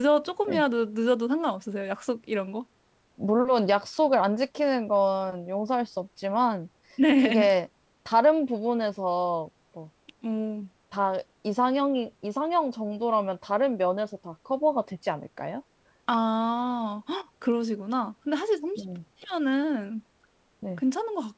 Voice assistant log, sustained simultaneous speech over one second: none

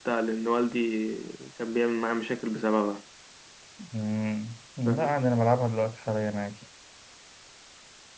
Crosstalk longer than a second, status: none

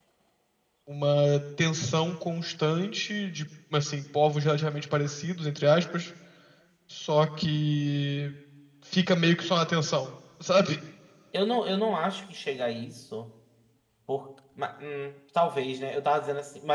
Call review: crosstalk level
none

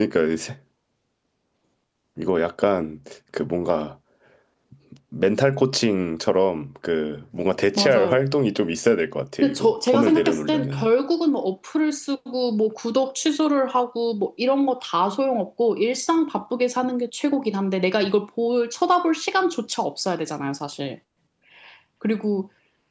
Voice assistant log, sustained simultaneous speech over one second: present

